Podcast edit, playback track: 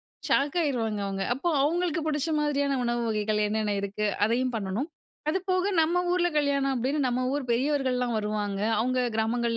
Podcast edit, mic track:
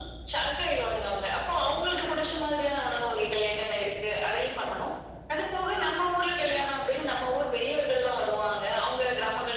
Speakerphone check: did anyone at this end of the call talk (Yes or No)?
No